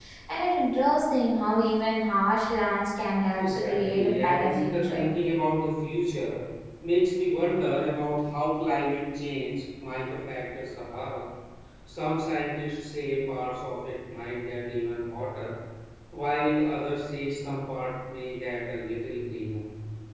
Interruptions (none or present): present